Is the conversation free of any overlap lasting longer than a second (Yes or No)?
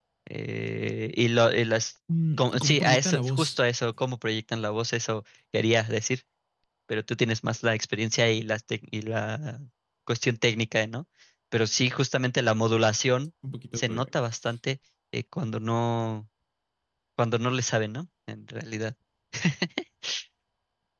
No